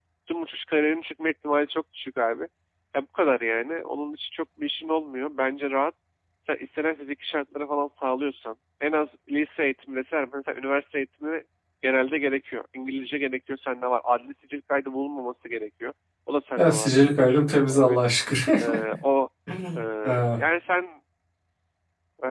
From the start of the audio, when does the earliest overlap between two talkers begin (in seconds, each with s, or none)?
16.6 s